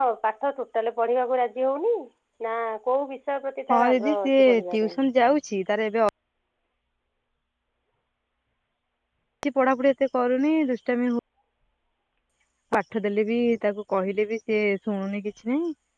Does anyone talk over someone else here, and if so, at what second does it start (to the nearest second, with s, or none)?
4 s